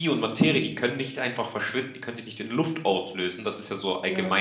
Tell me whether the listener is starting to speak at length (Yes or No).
No